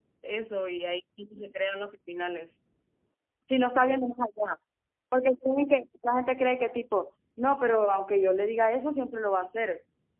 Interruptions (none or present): none